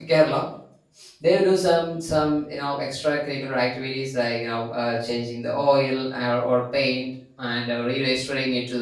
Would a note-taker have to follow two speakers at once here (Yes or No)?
No